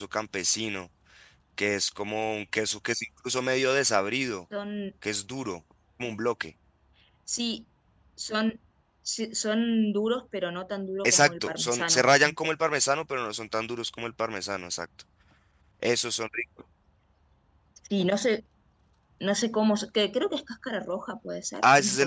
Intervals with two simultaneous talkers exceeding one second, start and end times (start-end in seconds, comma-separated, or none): 11.0-12.3